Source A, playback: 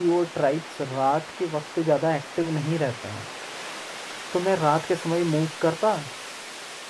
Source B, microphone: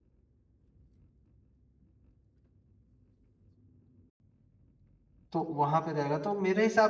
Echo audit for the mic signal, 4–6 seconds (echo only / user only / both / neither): user only